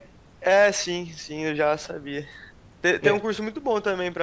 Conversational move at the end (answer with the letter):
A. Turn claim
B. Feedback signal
B